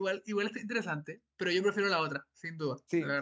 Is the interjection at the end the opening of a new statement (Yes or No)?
Yes